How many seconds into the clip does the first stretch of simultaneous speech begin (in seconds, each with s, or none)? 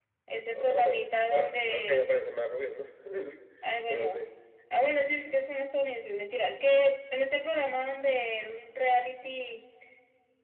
0.5 s